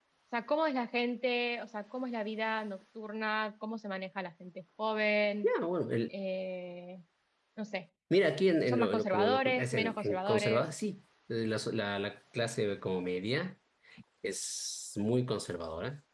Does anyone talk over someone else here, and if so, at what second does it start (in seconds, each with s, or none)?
8.7 s